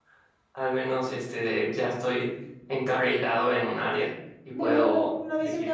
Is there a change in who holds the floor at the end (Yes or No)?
Yes